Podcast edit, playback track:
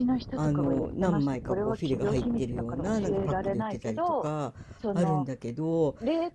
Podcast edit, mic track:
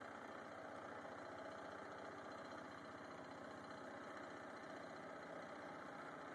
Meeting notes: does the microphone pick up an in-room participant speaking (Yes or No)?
No